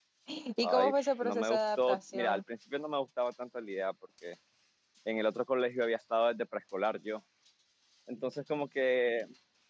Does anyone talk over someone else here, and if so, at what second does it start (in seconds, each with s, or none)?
0.6 s